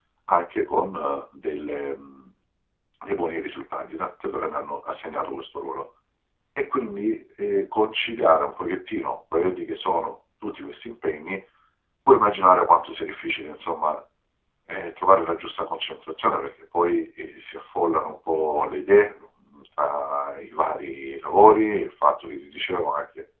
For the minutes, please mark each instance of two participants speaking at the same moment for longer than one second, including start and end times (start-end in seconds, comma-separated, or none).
none